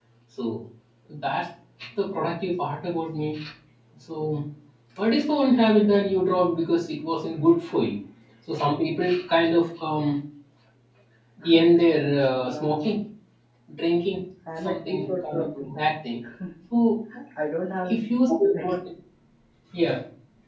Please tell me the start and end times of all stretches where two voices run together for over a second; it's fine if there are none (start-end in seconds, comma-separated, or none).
14.6-15.8